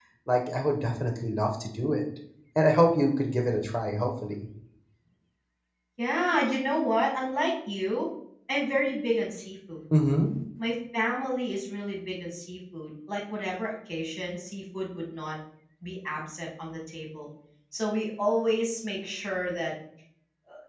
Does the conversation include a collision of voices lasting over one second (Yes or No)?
No